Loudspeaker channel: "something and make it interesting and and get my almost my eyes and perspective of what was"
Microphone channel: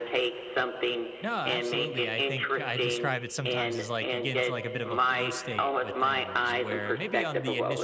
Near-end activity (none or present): present